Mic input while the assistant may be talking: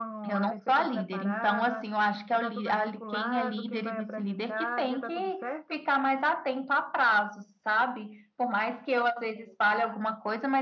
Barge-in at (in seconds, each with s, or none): none